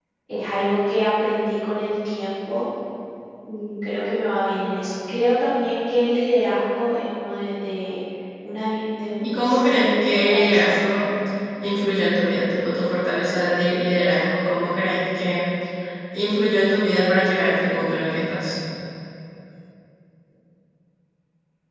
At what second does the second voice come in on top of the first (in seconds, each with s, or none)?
9.2 s